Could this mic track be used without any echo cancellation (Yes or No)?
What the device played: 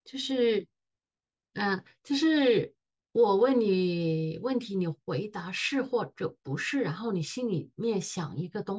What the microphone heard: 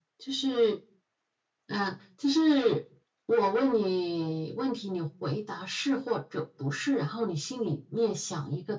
No